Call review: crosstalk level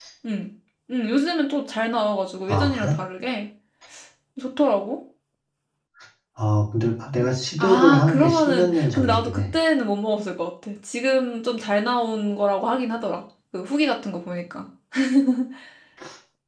present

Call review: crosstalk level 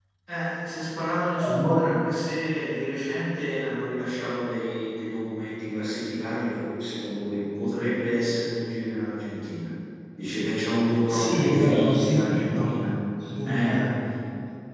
present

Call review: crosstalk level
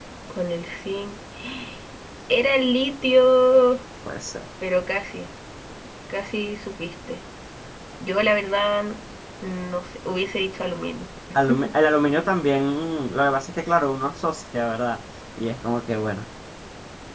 none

